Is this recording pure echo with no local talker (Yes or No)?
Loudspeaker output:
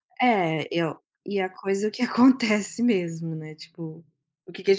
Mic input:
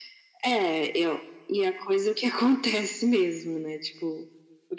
Yes